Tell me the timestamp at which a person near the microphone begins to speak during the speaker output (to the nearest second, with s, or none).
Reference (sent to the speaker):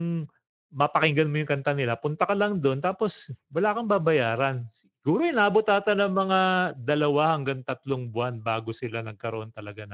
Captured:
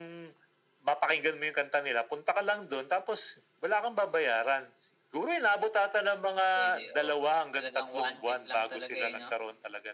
7 s